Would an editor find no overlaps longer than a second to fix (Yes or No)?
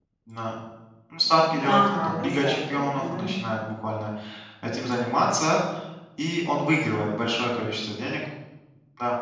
No